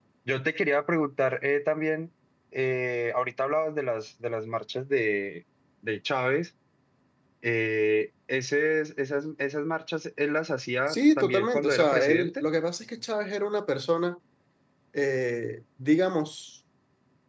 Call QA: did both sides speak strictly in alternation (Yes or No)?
No